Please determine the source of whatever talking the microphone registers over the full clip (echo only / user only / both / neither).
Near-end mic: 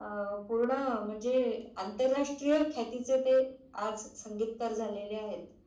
echo only